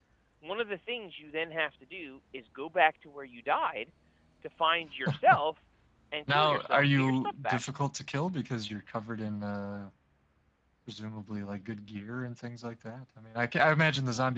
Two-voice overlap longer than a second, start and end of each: 6.3-7.6

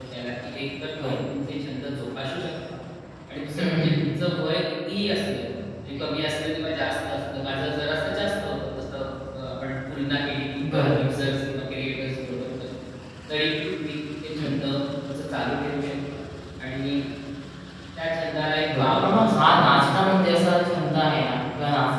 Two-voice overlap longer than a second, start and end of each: 18.7-20.2

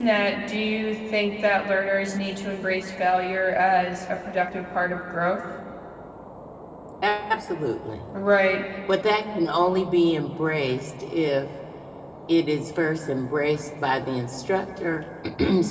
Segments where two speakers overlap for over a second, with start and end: none

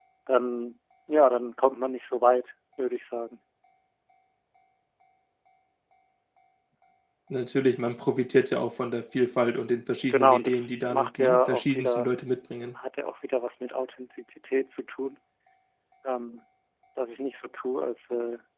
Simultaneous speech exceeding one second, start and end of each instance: 10.1-12.1

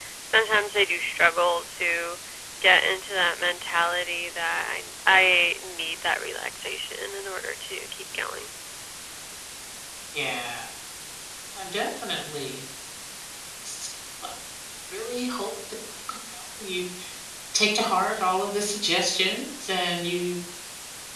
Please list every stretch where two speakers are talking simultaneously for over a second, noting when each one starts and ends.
none

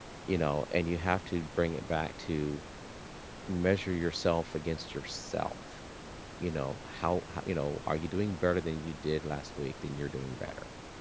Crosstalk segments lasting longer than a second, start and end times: none

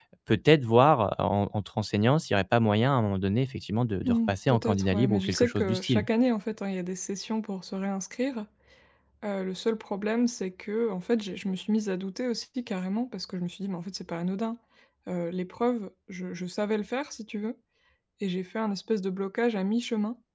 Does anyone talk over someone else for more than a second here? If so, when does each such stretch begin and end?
4.0-6.0

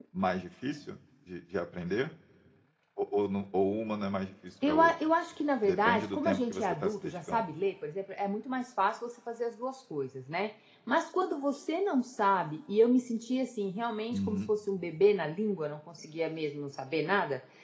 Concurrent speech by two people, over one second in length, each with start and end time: 5.6-7.5

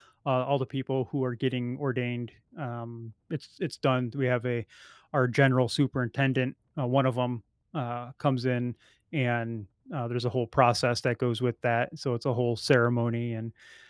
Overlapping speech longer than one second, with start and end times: none

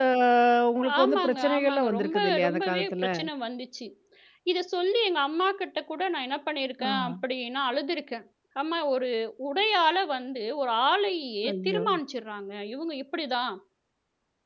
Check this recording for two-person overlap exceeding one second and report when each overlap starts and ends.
1.0-3.1

